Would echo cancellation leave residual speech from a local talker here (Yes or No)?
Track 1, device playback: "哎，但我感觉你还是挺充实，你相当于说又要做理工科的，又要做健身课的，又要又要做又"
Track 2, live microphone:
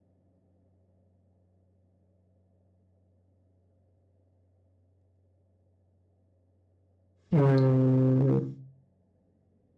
Yes